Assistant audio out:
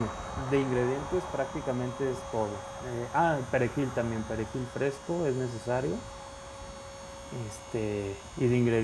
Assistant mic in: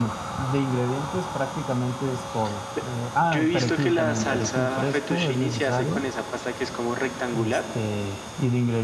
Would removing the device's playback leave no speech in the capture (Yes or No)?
No